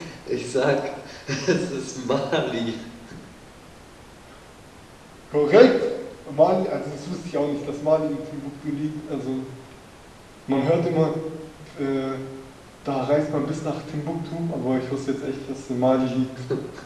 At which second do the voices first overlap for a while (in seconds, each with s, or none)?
none